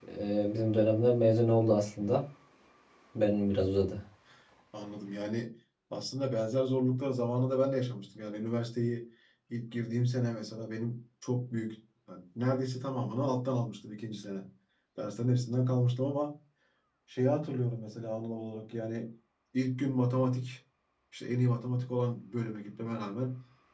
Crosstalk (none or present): none